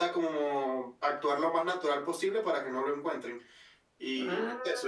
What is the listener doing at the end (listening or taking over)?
listening